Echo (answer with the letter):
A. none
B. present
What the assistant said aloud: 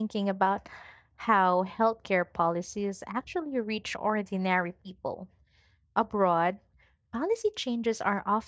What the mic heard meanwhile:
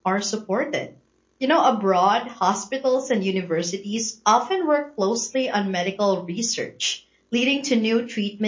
A